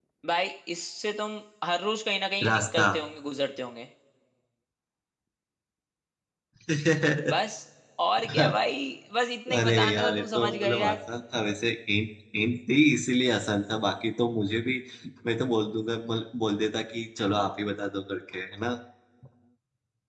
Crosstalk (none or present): present